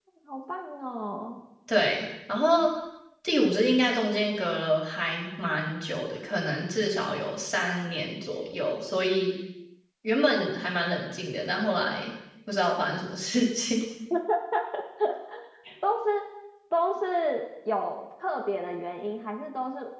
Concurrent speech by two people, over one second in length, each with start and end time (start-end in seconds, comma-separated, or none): none